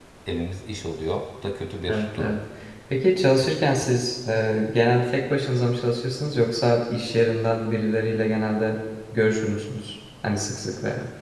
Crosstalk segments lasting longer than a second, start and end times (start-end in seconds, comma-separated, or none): none